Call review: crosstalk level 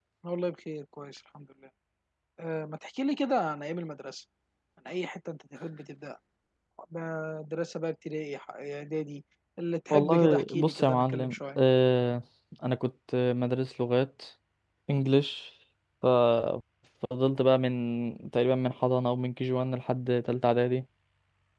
present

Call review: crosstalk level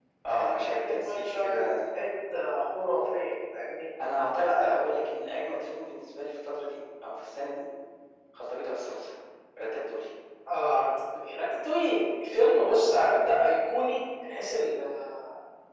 present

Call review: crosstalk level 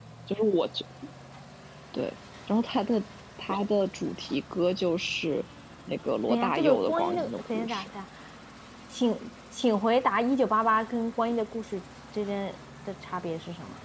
present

